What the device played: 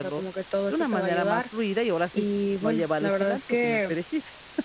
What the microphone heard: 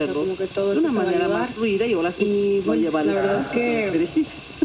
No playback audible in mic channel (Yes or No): No